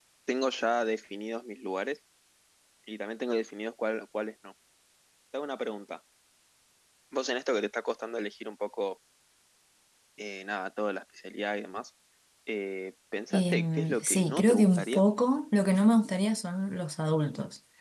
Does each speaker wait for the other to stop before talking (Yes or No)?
No